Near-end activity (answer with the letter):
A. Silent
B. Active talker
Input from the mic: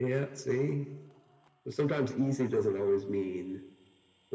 A